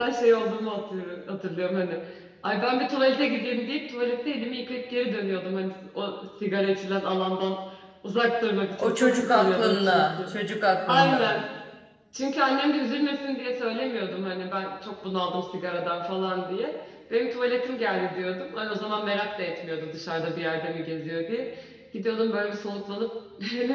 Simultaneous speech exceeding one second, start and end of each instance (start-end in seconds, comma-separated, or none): 8.8-10.4